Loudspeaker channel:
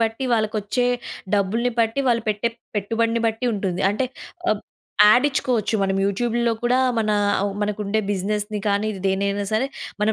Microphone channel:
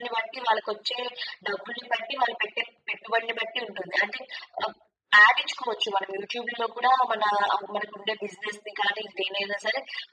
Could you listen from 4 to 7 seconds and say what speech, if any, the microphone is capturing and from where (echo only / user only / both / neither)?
echo only